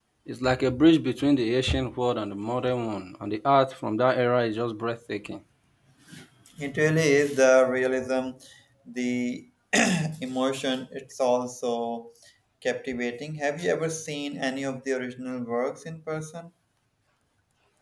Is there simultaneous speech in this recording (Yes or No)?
No